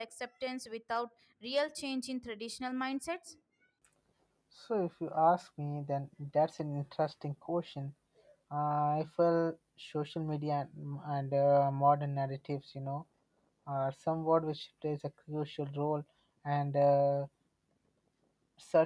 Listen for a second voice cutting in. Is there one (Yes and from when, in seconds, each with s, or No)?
No